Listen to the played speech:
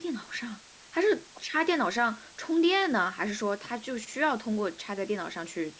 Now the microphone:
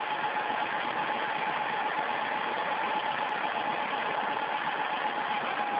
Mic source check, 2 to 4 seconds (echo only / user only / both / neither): neither